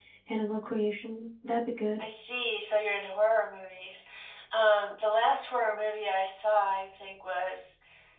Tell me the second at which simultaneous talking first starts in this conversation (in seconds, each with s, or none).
none